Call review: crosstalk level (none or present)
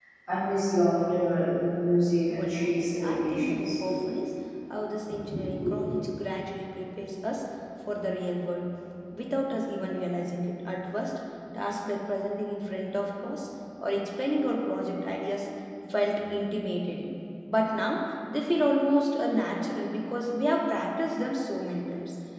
present